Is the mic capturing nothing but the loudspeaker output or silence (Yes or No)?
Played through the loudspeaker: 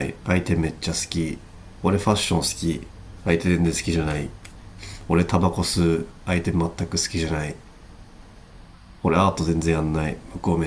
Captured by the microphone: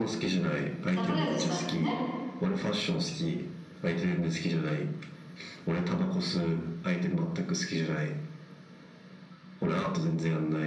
No